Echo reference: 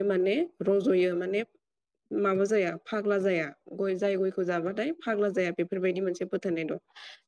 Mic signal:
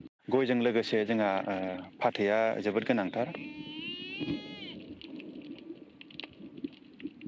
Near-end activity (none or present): present